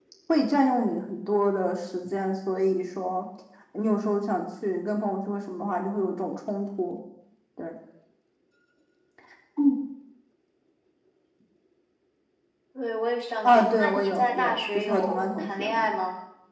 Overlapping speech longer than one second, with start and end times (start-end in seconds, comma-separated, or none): 13.4-15.9